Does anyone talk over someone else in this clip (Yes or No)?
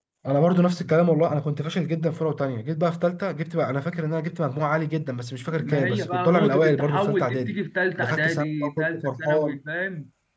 Yes